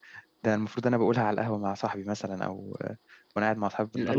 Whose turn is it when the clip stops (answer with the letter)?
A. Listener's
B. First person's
A